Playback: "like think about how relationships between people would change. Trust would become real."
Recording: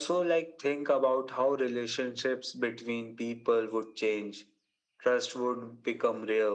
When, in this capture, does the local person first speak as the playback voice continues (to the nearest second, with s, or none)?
none